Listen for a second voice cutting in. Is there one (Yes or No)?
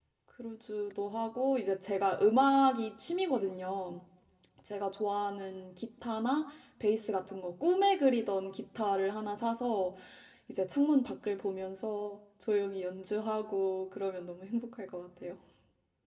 No